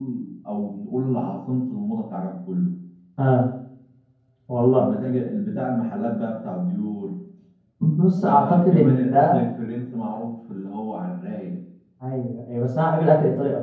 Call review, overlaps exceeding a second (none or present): present